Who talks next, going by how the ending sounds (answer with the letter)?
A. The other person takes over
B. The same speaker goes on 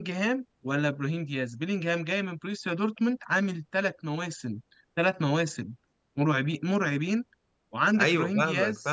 A